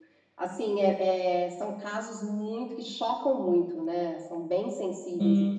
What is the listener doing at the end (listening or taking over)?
taking over